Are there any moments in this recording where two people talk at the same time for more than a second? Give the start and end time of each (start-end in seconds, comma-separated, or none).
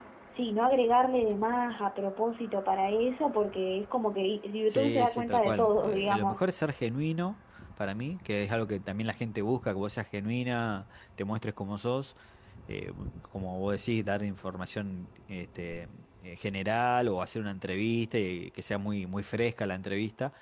4.7-6.5